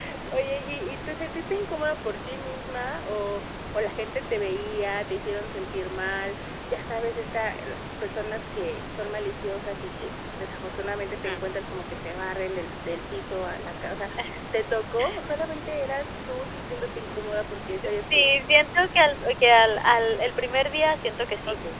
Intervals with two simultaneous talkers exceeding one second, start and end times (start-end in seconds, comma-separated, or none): none